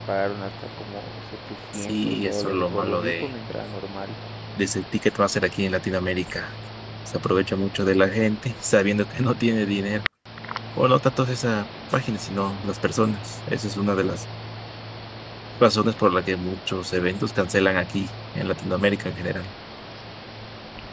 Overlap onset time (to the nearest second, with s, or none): 2 s